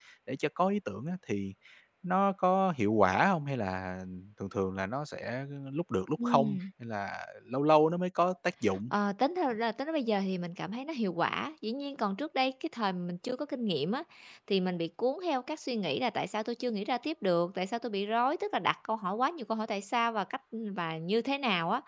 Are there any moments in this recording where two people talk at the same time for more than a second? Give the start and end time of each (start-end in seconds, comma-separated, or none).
none